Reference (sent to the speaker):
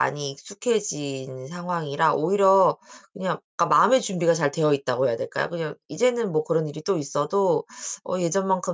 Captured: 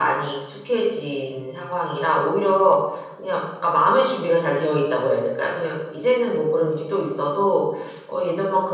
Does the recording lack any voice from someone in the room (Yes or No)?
Yes